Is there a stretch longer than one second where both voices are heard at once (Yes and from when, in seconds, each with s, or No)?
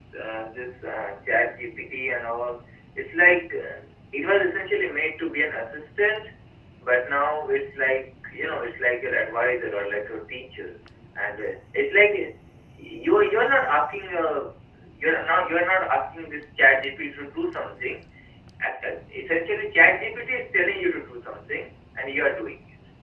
No